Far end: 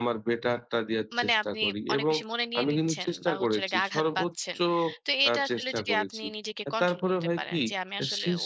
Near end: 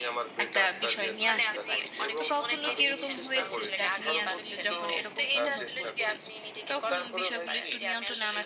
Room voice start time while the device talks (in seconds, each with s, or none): 0.4 s